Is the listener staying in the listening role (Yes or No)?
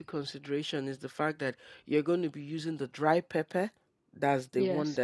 Yes